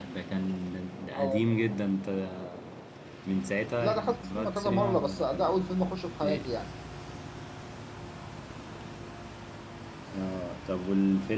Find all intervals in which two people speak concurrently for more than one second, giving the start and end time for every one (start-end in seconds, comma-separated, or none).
3.8-5.6